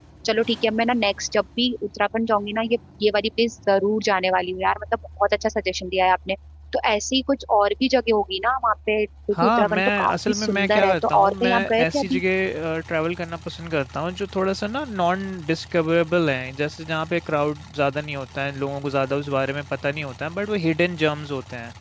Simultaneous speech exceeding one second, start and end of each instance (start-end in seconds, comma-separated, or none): 9.4-12.2